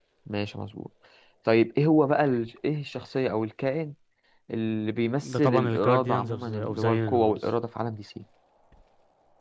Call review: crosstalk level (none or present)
present